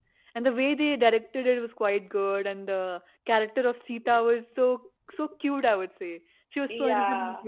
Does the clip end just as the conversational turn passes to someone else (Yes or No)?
Yes